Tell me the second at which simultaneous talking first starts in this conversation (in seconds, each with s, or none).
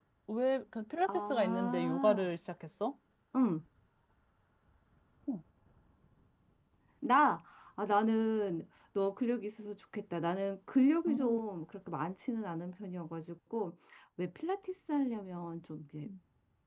1.1 s